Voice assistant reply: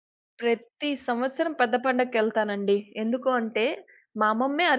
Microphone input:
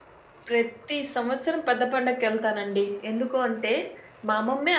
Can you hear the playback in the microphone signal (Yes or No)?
Yes